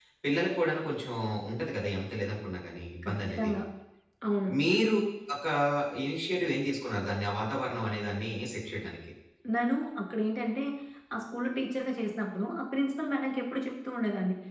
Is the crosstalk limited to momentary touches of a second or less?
Yes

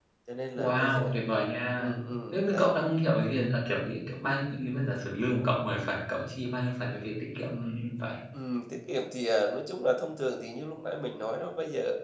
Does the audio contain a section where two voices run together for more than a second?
No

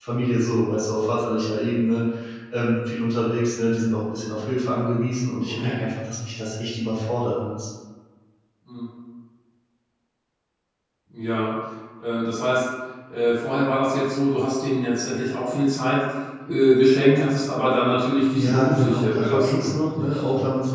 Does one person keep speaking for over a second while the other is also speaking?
Yes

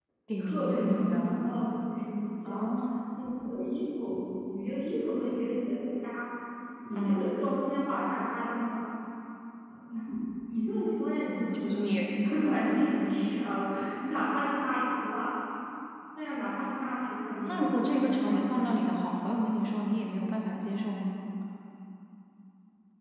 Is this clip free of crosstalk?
No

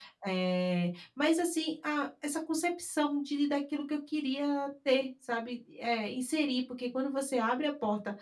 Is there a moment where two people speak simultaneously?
No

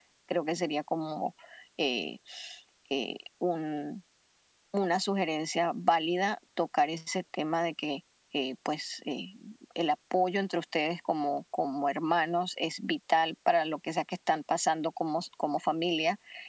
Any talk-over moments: No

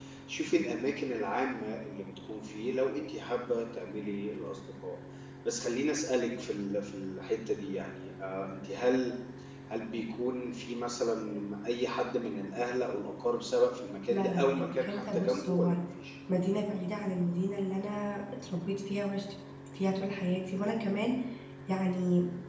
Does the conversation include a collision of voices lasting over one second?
Yes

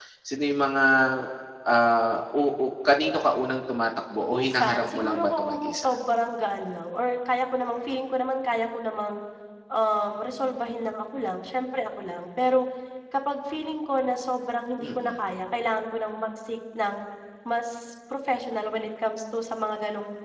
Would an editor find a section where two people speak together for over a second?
Yes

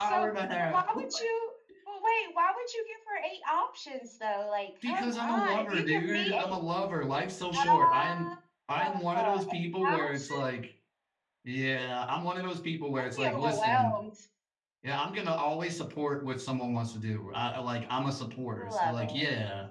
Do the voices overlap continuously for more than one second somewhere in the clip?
Yes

